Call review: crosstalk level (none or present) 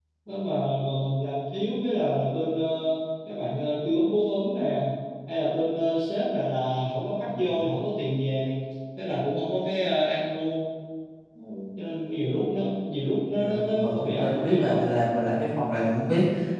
present